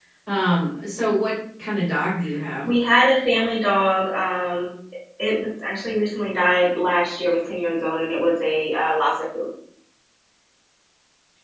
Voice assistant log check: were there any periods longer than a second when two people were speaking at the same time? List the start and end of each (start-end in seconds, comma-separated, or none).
none